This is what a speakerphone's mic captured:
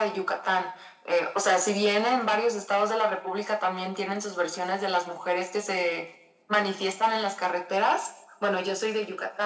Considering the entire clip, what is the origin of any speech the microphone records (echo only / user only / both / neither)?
echo only